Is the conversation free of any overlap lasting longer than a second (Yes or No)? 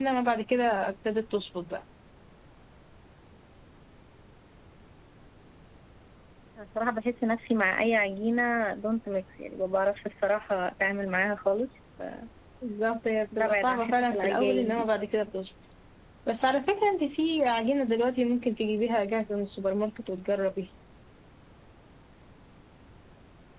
No